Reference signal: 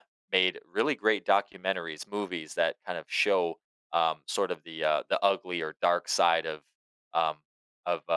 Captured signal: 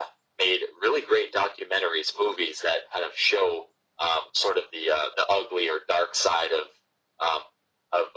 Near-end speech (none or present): none